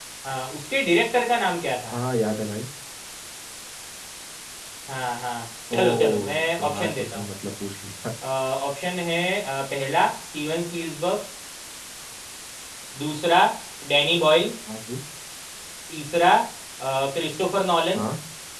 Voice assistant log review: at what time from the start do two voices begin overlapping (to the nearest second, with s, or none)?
6 s